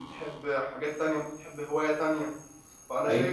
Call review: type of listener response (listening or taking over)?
listening